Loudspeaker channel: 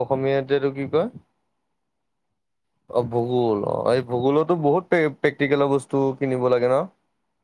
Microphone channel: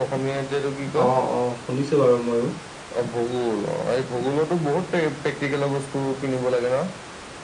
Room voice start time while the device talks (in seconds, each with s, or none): 1.0 s